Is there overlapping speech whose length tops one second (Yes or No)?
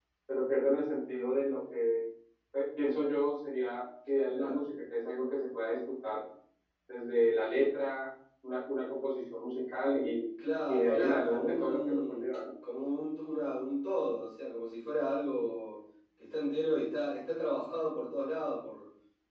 Yes